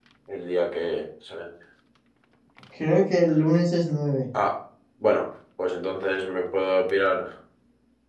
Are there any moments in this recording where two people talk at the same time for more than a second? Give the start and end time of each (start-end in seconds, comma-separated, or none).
none